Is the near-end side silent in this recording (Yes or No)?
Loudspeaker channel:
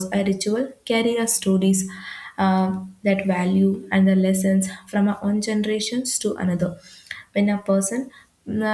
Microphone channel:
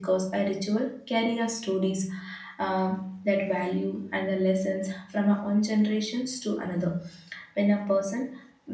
Yes